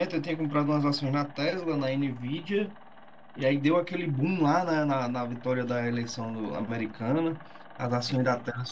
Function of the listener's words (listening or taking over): listening